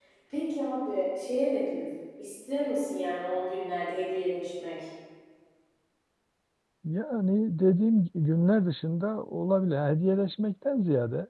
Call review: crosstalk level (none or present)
none